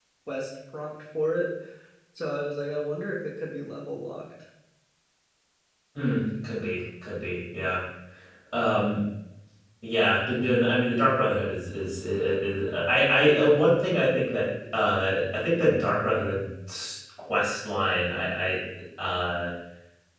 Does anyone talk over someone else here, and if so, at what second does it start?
none

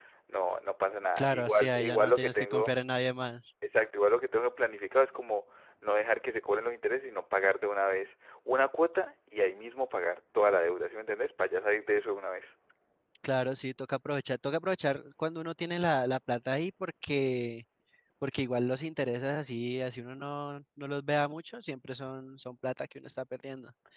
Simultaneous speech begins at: 1.2 s

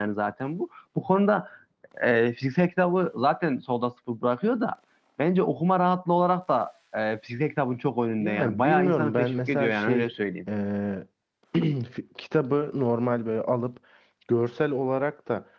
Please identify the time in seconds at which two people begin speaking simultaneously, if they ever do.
8.2 s

